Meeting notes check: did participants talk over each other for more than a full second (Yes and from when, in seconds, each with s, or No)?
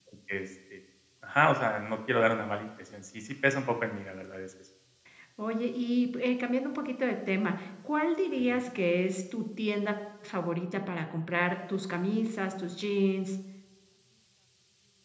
No